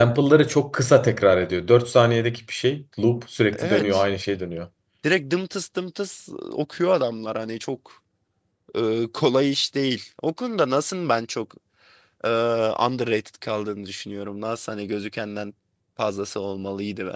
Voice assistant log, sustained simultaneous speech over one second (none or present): none